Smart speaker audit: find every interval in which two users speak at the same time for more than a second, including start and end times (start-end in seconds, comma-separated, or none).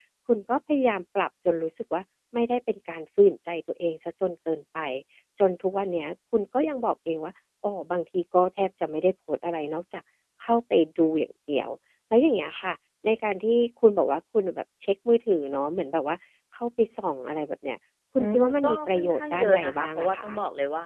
18.2-20.3